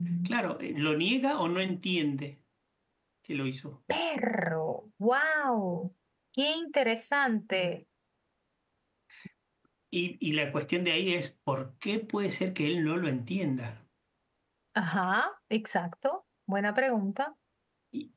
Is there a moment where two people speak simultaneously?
No

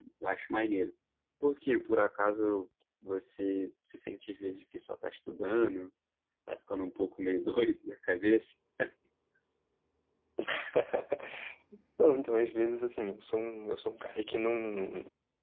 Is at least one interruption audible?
No

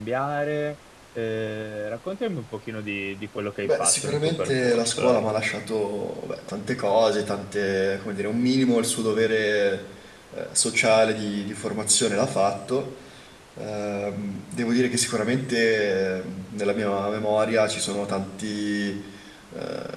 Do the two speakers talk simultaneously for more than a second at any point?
Yes, from 3.6 s

